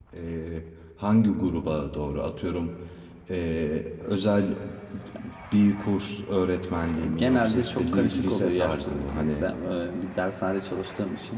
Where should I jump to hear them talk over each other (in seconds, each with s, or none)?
7.0 s